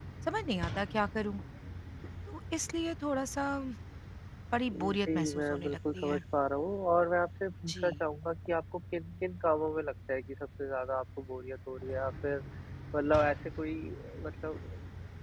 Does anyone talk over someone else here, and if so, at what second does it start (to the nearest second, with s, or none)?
5 s